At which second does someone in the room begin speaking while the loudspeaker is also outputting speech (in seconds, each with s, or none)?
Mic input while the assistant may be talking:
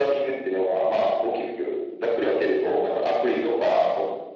none